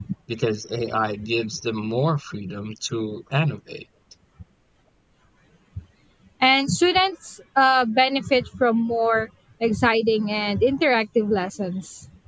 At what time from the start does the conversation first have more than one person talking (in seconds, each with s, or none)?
none